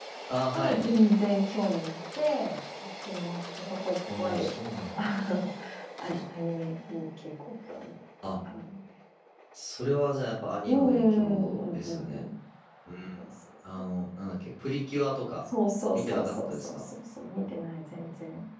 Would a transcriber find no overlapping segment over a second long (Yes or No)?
No